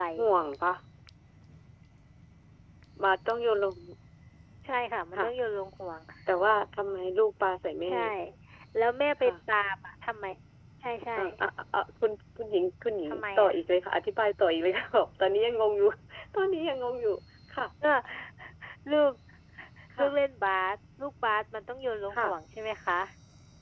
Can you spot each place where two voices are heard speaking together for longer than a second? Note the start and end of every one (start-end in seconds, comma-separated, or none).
none